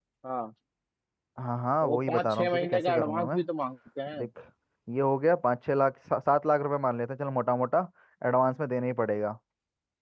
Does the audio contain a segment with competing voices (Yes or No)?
Yes